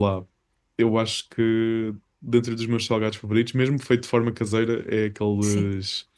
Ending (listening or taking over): listening